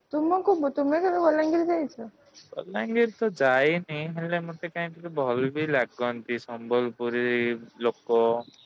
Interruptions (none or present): none